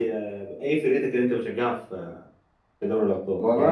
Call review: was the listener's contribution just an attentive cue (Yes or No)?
No